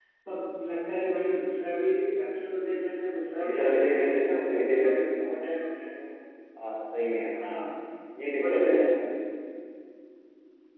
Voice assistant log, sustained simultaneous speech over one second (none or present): present